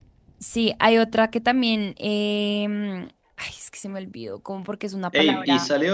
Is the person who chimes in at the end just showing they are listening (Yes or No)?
No